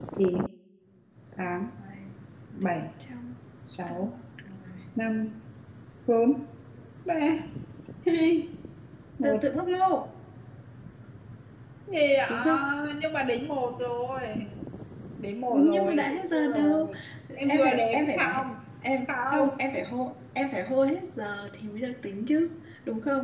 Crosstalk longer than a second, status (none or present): present